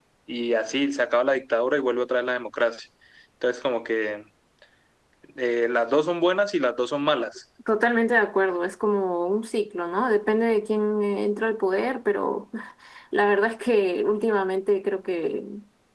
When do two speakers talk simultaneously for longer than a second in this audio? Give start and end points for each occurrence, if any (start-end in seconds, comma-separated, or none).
none